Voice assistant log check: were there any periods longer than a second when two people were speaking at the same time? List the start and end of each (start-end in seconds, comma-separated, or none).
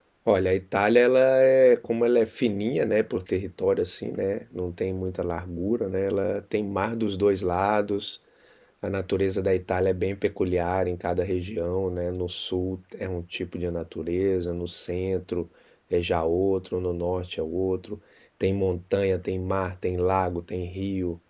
none